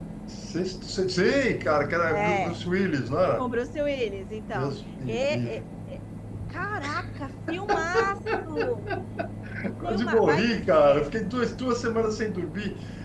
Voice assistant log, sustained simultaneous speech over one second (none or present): present